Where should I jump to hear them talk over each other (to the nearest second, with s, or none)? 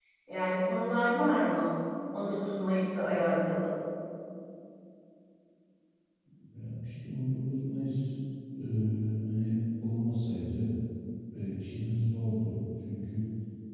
none